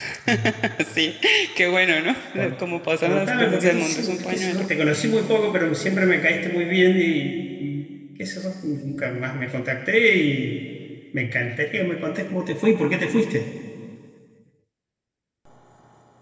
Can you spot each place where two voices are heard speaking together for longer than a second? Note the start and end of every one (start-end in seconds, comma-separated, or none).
3.0-4.7